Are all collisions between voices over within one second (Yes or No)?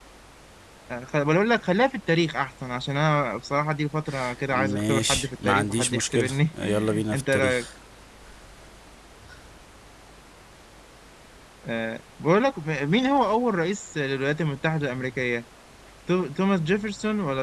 No